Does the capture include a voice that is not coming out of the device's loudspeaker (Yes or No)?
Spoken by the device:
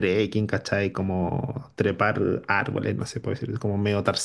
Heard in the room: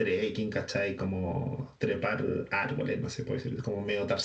No